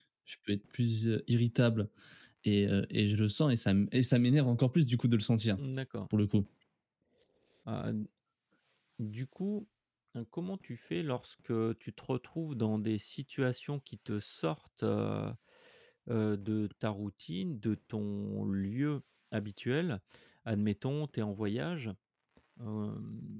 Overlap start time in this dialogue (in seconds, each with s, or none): none